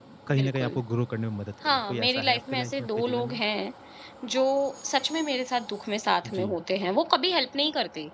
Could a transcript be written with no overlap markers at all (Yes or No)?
No